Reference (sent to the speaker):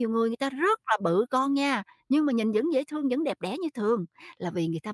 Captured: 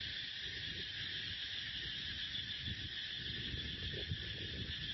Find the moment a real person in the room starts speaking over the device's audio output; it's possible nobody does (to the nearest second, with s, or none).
none